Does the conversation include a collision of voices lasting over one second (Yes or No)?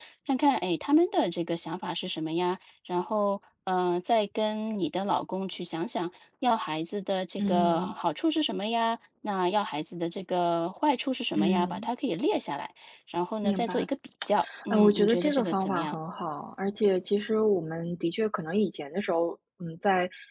Yes